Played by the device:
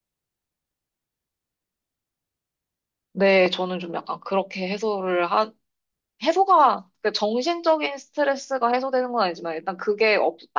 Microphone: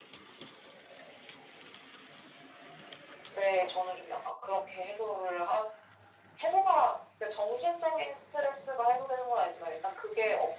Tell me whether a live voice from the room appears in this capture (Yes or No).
No